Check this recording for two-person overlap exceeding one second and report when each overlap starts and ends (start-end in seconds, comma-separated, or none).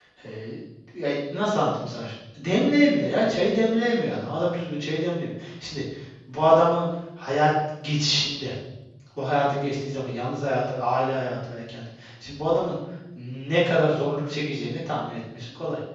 none